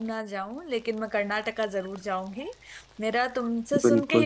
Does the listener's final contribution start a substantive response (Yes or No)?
No